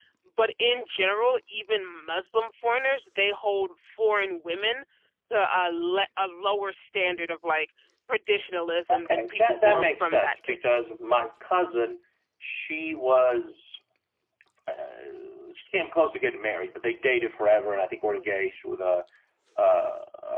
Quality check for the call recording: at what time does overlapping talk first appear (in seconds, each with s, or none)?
8.9 s